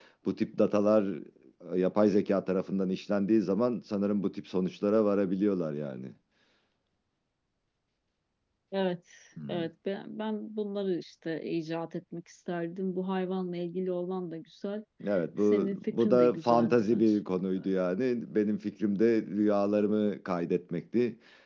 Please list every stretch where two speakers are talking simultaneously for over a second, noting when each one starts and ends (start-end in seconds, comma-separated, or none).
15.4-17.1